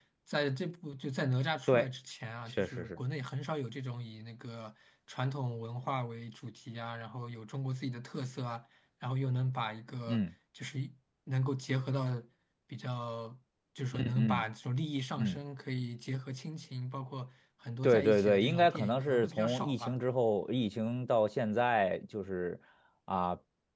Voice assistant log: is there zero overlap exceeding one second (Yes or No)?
No